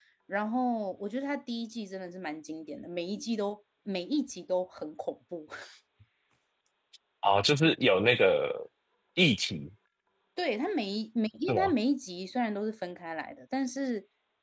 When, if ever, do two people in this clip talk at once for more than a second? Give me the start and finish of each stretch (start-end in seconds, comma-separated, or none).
none